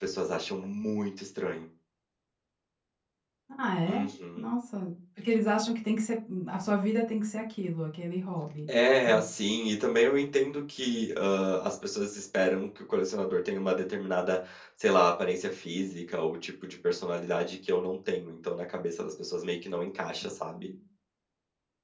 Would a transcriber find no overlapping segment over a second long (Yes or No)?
Yes